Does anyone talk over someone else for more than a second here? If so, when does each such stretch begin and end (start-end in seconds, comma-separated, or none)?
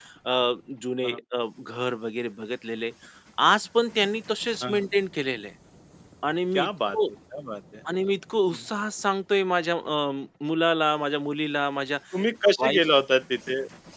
none